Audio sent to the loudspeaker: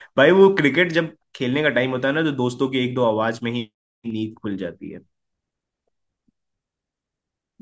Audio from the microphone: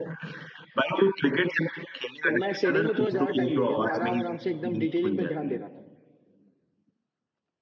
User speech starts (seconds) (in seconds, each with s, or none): 2.2 s